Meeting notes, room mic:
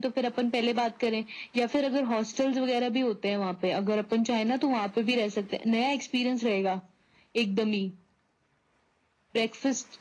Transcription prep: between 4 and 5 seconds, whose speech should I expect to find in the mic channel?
echo only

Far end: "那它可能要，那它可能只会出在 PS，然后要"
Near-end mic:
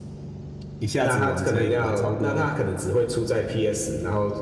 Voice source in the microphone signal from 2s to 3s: both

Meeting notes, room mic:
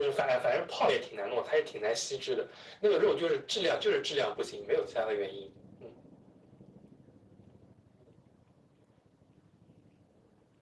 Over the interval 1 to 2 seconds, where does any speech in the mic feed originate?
echo only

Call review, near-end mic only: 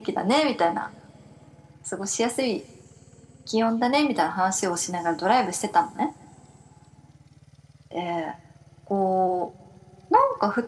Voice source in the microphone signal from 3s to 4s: echo only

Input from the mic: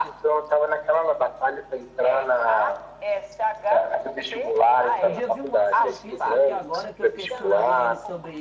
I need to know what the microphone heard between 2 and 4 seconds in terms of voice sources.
echo only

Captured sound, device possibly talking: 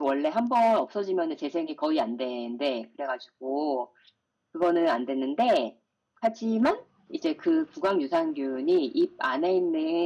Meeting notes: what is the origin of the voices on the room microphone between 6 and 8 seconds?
user only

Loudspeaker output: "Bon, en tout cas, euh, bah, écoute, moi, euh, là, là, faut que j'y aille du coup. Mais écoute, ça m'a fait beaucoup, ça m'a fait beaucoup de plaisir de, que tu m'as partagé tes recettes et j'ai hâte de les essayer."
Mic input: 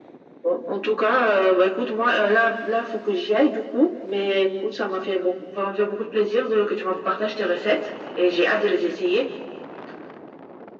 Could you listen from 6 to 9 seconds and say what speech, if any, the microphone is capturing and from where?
echo only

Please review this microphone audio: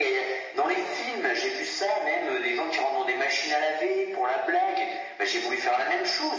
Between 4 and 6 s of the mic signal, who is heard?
echo only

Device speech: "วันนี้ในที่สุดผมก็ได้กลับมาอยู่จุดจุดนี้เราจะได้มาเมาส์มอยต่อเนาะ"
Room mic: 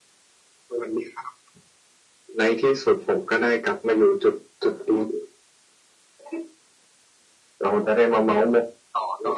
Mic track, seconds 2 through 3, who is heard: echo only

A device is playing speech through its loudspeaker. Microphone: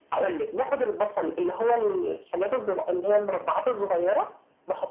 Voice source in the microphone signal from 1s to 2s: echo only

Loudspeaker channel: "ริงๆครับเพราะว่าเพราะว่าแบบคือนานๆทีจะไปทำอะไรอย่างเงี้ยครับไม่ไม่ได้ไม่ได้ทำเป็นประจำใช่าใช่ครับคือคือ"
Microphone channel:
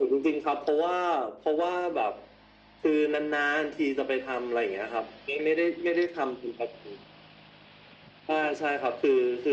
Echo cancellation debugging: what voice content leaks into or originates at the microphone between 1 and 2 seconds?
echo only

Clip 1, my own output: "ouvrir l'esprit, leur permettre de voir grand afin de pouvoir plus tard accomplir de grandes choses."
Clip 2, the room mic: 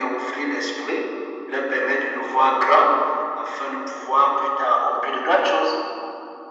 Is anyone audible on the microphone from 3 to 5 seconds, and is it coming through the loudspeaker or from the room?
echo only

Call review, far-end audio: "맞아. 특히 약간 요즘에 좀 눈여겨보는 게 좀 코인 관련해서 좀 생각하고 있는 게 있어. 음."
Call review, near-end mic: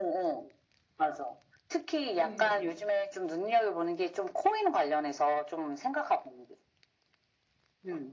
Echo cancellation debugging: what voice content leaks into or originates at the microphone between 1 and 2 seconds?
echo only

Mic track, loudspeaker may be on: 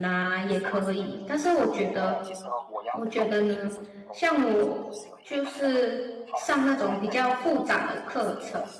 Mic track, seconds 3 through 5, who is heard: both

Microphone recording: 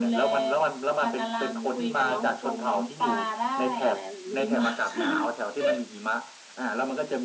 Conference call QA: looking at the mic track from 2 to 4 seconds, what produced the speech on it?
echo only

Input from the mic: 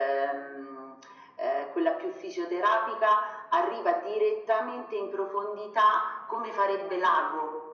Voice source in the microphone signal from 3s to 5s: echo only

